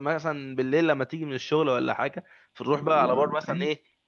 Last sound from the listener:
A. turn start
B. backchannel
B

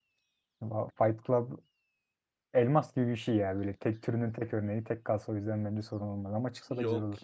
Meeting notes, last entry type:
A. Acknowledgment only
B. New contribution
B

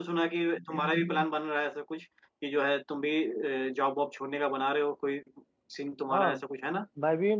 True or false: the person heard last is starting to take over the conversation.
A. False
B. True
B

